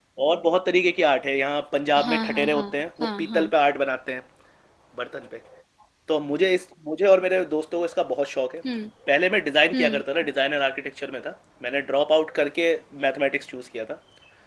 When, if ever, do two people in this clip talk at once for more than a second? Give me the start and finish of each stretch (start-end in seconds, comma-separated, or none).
2.0-3.4